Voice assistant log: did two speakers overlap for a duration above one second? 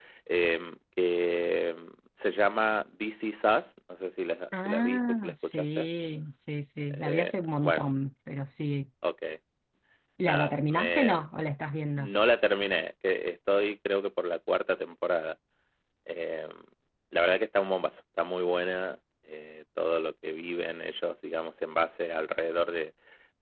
Yes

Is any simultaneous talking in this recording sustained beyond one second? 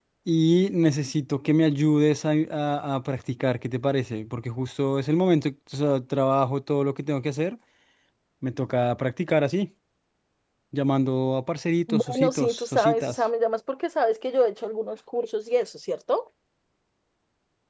Yes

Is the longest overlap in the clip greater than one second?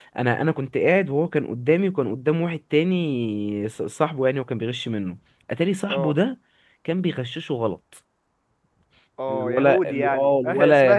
Yes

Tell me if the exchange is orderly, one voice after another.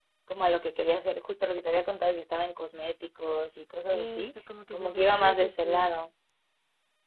No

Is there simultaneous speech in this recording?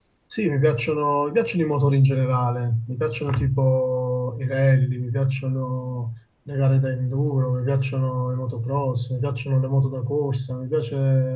No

